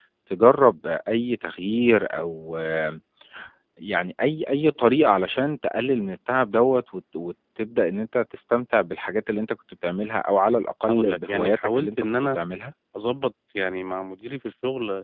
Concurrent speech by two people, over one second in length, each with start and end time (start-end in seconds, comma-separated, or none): 10.9-12.4